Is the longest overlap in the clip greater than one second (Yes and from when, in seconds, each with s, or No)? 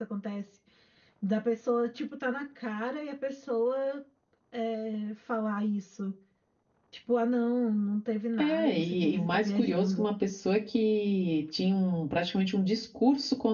Yes, from 8.4 s